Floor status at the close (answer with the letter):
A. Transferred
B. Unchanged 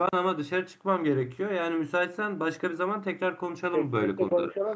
A